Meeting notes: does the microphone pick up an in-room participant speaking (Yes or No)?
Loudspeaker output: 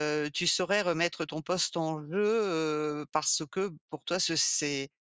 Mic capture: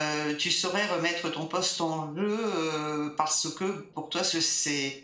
No